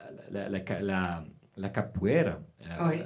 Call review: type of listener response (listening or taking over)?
listening